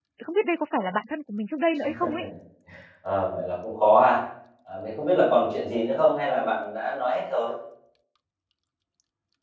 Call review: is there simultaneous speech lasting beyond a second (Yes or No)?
No